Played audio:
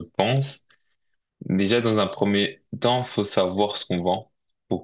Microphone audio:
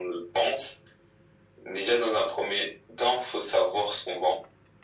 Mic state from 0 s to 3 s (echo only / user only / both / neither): echo only